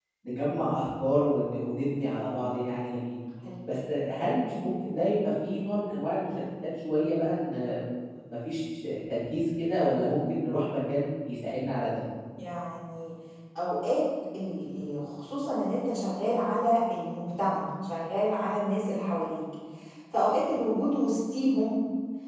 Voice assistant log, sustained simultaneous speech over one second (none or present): none